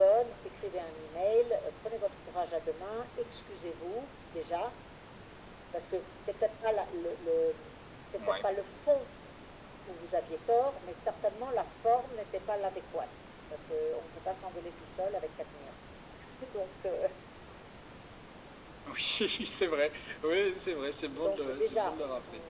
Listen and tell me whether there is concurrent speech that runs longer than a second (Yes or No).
Yes